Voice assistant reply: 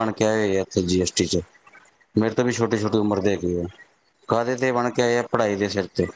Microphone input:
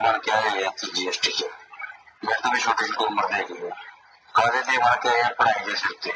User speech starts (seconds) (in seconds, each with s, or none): none